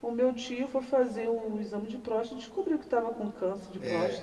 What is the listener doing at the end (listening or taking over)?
taking over